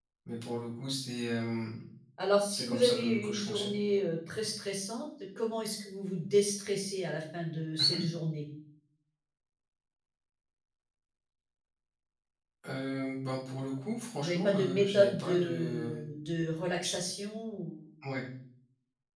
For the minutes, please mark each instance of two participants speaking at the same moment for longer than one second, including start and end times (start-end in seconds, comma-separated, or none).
2.5-3.8, 14.2-15.9